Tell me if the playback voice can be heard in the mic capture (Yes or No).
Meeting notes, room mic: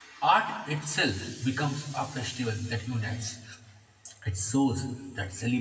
No